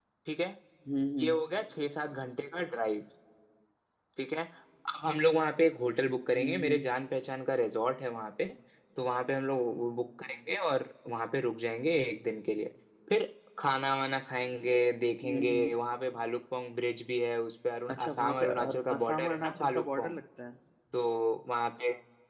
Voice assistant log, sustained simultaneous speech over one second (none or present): present